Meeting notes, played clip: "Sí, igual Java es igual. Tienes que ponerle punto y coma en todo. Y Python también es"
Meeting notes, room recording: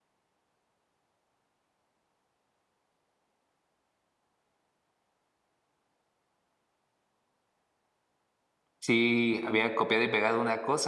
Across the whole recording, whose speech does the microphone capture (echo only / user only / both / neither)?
user only